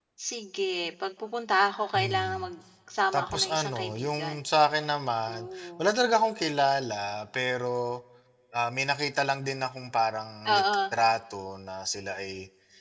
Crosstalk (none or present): present